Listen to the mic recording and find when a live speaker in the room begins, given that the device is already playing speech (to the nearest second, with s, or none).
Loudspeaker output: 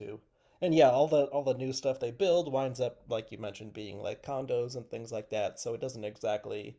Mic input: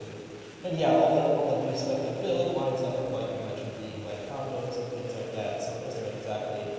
none